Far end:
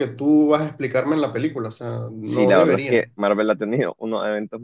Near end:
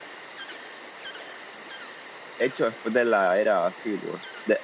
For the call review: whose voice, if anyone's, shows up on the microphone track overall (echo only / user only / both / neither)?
user only